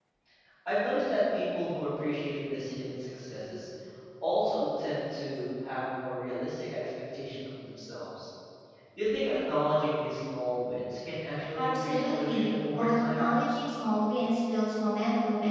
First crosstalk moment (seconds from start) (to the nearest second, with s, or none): 12 s